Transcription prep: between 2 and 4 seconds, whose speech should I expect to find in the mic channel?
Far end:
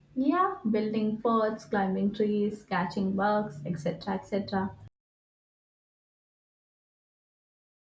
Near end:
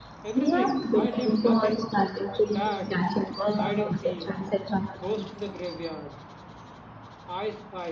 both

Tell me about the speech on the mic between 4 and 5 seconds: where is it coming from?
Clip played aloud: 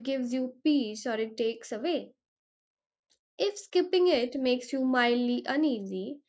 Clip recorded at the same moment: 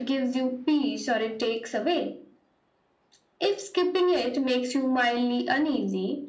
echo only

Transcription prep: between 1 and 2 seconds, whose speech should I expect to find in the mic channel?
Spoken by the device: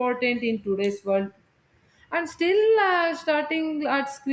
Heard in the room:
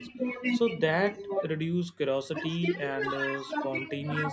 both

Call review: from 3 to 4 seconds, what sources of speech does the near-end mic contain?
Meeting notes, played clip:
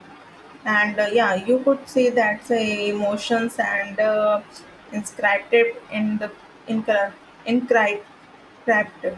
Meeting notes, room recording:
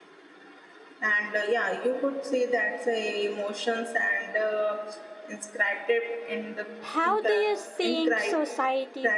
echo only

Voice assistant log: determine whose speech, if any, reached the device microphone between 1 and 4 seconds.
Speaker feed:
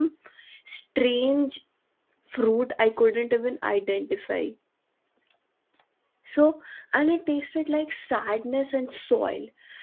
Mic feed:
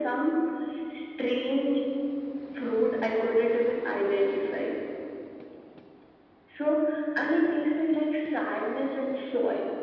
echo only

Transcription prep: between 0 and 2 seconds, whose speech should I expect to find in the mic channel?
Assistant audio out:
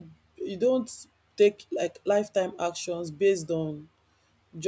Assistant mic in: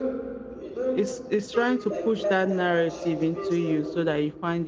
both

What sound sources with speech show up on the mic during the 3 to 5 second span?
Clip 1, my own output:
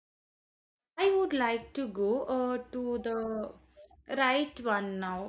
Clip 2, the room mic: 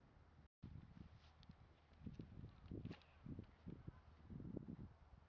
neither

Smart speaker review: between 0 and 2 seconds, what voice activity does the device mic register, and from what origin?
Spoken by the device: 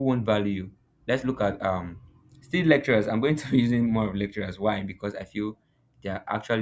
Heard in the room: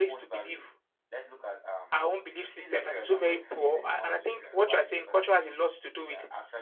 both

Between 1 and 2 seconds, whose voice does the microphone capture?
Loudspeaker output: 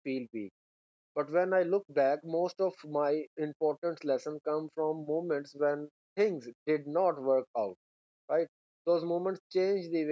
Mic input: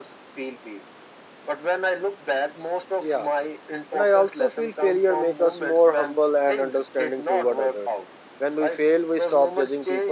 echo only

